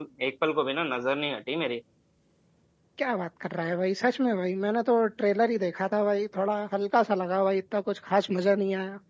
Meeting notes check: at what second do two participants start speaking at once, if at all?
none

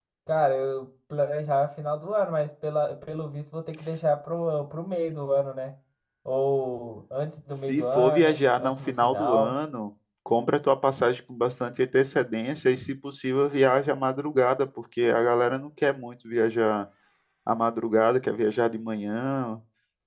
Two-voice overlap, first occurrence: 7.7 s

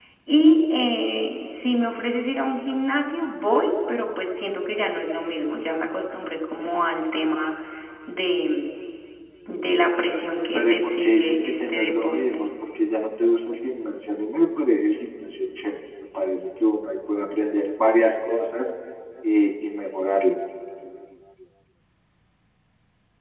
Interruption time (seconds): 10.5 s

